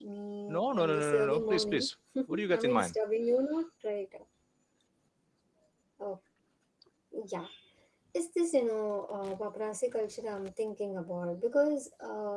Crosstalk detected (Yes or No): Yes